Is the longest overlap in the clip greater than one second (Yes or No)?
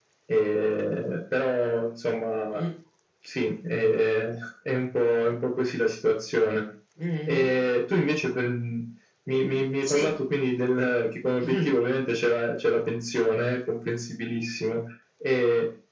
No